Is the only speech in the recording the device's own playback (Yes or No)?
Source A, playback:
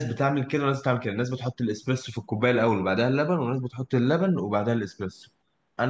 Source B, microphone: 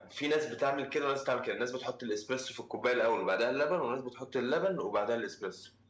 Yes